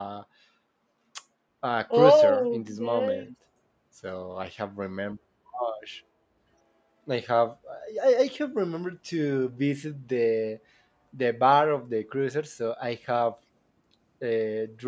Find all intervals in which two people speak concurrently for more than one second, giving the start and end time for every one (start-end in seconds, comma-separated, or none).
1.9-3.3